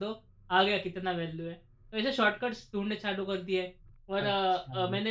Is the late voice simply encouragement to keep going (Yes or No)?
No